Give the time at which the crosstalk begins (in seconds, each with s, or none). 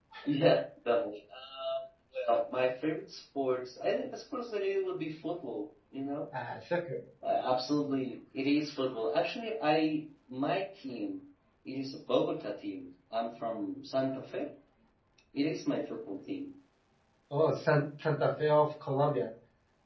none